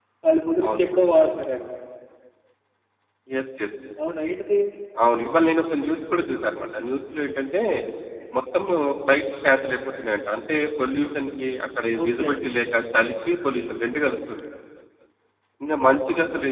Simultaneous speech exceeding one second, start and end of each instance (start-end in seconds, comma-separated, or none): none